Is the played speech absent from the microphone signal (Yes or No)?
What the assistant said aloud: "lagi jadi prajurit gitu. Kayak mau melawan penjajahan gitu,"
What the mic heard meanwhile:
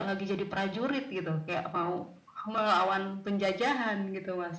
No